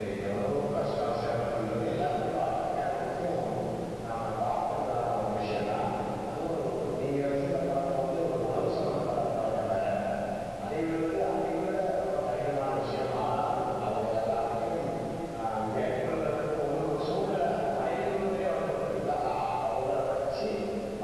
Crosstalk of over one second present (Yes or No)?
No